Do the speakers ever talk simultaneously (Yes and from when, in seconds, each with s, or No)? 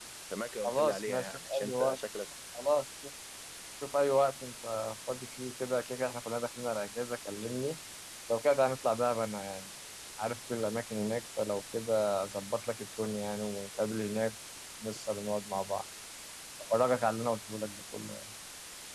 Yes, from 0.6 s